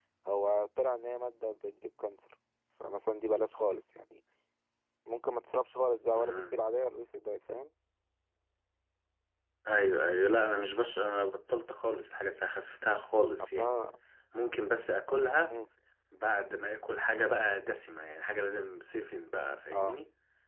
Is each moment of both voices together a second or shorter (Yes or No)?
Yes